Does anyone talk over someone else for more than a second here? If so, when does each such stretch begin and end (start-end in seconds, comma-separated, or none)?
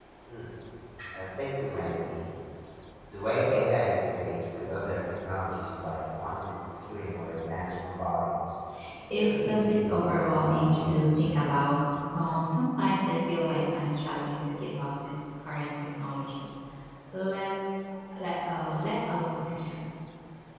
9.1-11.3